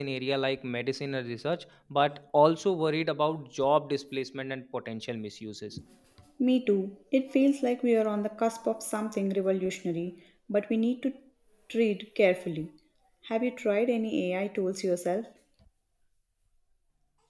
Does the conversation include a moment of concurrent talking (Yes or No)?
No